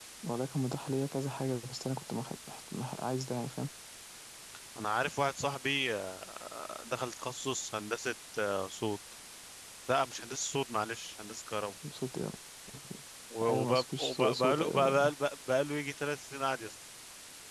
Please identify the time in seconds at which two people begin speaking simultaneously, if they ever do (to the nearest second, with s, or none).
13 s